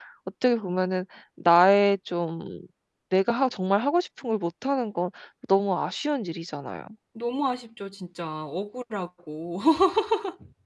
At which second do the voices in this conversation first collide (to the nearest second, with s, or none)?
none